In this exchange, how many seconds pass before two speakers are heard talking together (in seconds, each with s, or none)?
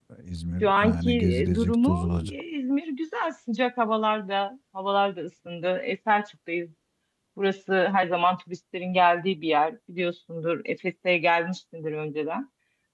0.6 s